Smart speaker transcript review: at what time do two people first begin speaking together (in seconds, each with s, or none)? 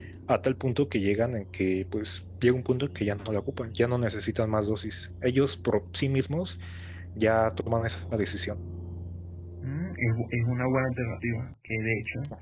none